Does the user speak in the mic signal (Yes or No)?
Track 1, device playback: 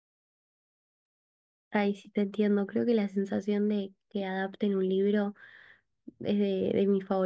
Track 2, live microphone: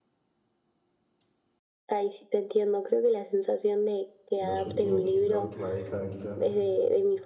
Yes